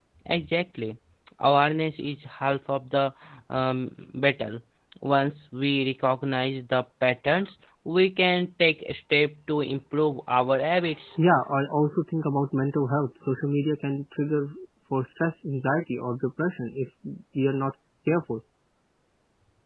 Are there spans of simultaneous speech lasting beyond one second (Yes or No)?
No